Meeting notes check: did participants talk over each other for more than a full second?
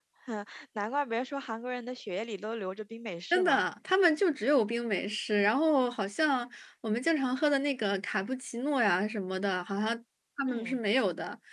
No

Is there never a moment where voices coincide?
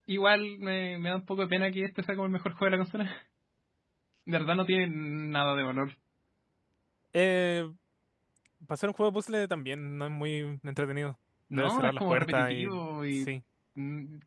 No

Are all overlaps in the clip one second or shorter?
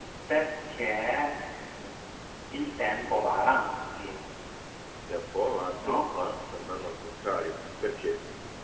Yes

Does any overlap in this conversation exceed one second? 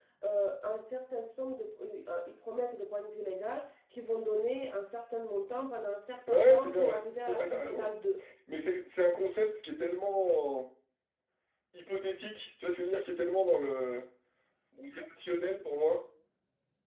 Yes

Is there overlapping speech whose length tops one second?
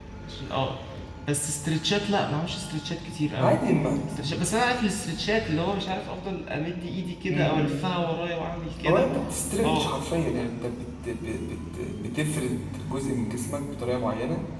No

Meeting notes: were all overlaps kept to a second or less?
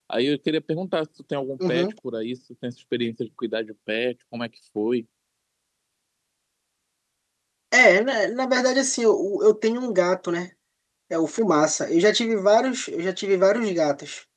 Yes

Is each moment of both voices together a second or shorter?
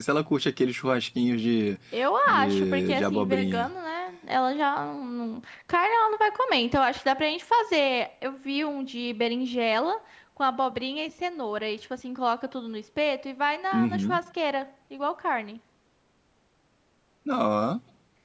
No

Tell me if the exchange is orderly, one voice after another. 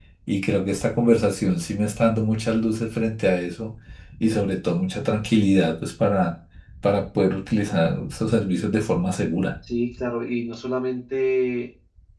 Yes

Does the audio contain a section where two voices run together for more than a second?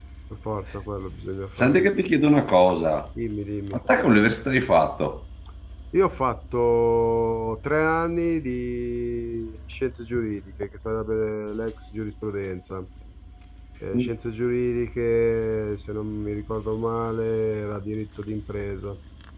No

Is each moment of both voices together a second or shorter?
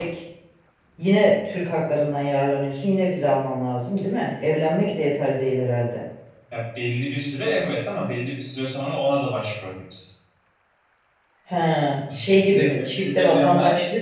No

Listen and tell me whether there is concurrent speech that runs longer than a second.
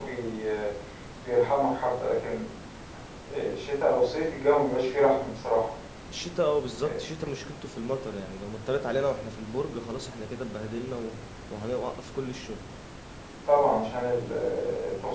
No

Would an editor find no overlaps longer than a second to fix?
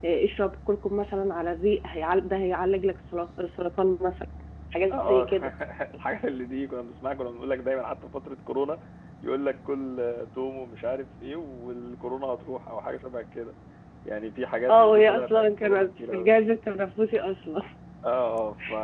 No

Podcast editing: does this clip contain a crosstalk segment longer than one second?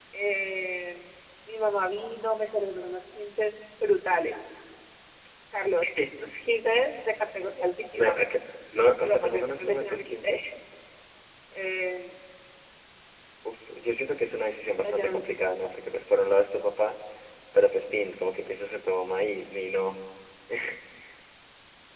Yes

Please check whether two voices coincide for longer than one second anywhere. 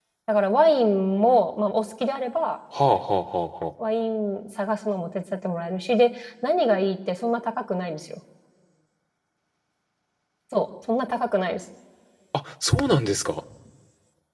No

